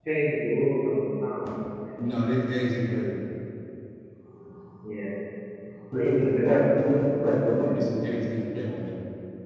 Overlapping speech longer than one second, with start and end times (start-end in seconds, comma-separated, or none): 5.9-7.8